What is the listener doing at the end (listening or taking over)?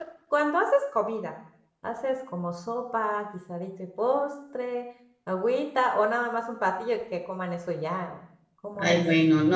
taking over